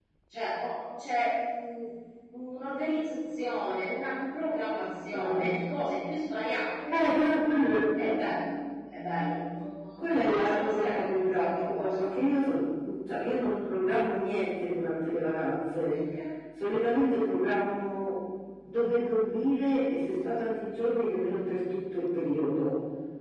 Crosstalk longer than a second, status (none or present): present